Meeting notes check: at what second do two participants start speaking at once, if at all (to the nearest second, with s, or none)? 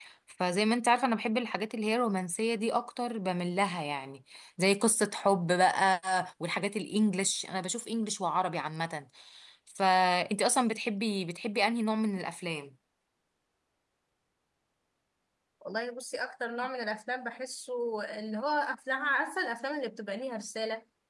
none